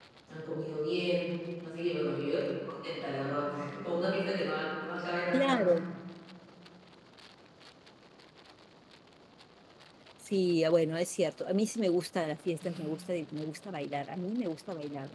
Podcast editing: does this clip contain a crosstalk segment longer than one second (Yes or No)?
No